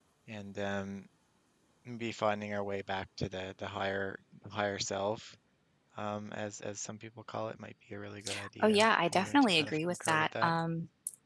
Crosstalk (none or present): present